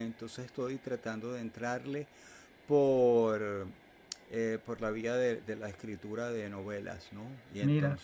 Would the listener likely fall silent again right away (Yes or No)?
Yes